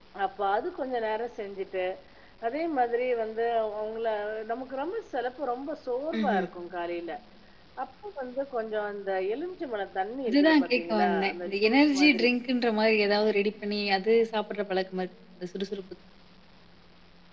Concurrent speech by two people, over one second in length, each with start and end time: 10.3-12.3

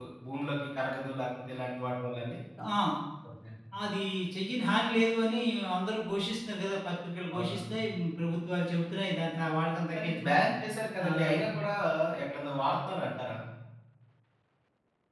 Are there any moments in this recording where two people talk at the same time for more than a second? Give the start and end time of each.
none

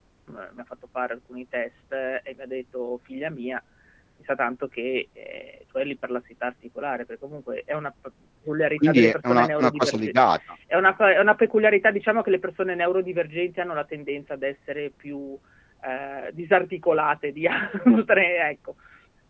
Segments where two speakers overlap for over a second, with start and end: 8.8-10.1

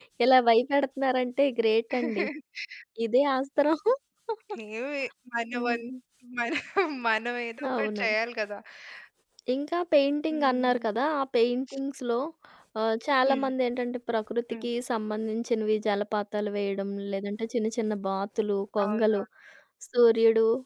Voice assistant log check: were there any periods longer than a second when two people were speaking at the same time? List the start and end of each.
none

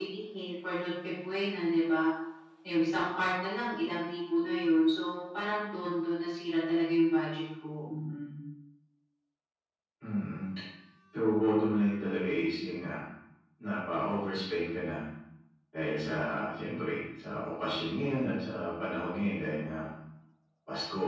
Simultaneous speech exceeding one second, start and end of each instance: none

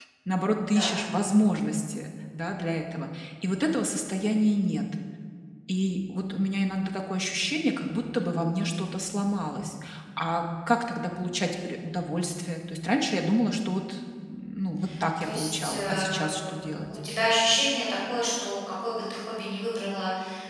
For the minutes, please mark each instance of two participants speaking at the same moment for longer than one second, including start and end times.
15.2-16.4

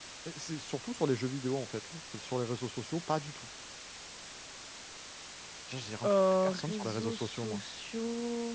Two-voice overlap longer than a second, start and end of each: 6.0-7.6

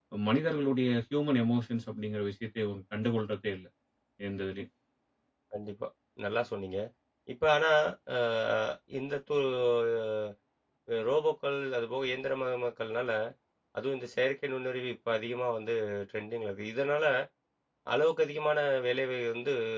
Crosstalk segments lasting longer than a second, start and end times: none

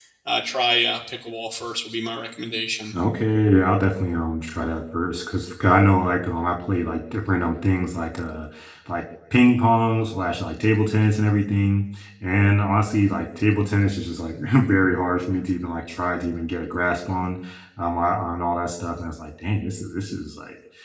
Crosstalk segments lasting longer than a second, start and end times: none

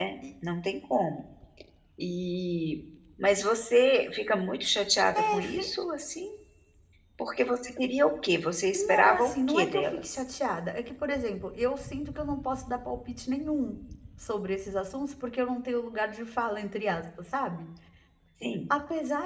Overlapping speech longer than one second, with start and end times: 8.7-10.2

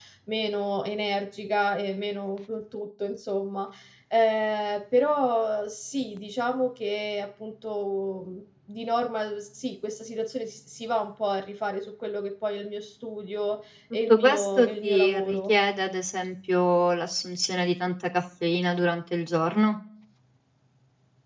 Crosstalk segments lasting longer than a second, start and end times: 14.1-15.5

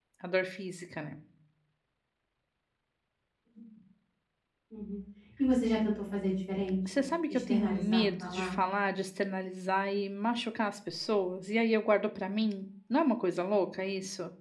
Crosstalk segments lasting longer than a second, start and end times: 6.9-8.6

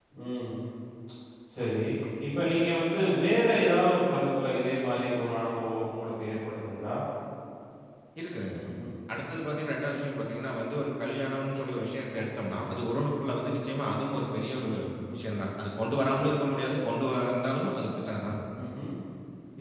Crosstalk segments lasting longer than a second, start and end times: none

